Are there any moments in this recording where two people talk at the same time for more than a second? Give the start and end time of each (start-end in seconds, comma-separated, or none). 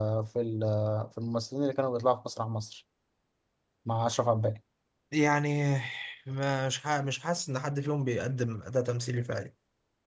none